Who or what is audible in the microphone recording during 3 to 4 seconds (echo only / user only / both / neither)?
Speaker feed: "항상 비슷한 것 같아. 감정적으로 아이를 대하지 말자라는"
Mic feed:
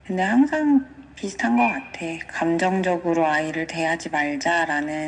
echo only